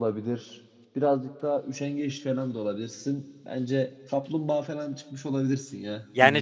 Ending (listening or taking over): taking over